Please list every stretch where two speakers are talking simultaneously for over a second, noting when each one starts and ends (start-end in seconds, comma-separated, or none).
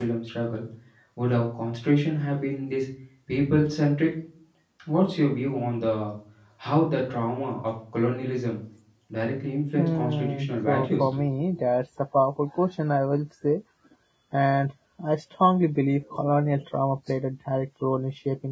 9.8-11.0